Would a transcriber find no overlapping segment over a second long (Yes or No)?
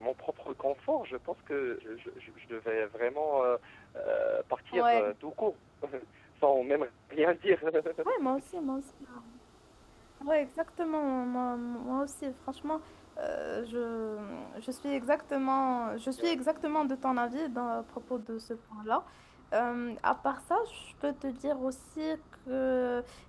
Yes